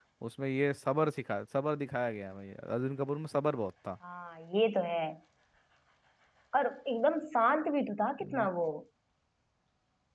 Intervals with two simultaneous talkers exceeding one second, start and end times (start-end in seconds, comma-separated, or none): none